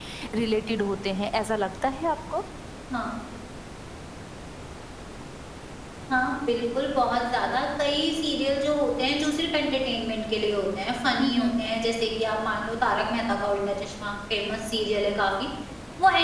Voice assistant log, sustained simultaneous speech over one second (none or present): none